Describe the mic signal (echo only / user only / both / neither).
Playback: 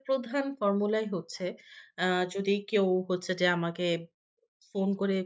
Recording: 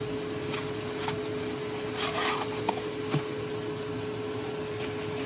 neither